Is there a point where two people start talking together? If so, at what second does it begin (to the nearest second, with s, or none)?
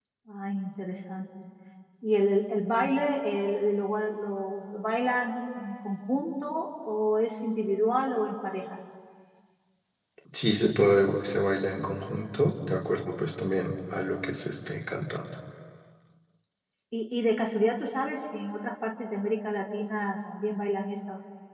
none